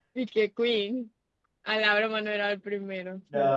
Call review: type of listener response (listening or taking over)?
taking over